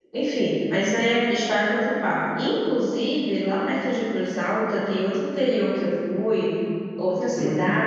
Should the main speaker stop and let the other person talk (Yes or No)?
No